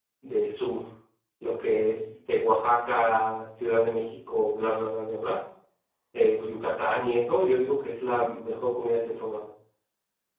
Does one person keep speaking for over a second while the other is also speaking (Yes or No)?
No